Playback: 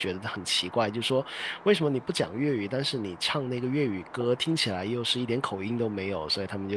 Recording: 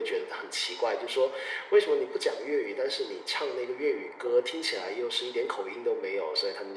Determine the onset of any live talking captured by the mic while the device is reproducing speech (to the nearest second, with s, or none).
none